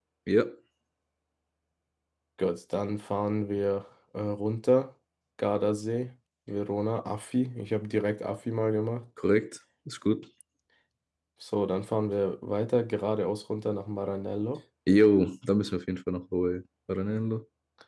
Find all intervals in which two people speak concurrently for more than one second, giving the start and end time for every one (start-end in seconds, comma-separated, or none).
none